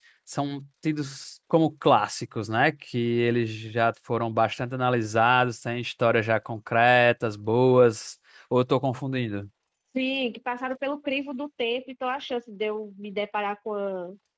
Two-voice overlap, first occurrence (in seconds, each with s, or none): none